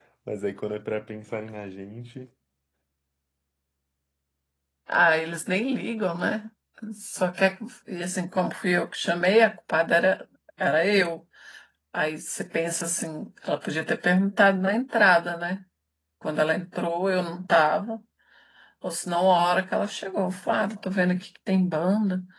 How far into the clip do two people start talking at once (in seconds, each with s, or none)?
none